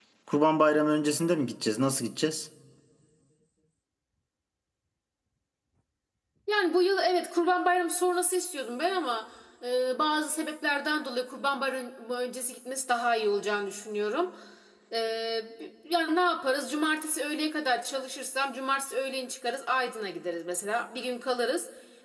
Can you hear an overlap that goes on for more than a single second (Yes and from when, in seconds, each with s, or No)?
No